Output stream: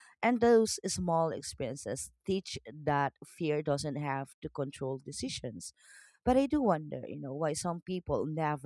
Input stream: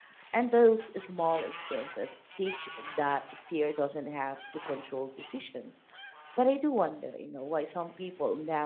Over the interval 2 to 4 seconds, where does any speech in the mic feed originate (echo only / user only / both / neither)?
echo only